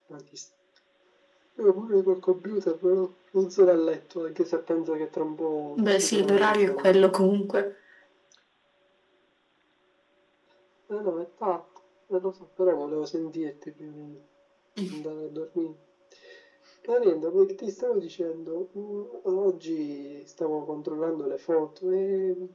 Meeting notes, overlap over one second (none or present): present